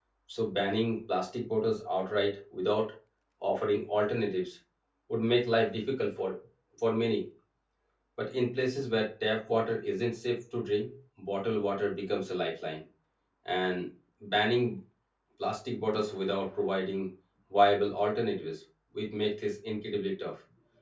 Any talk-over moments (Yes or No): No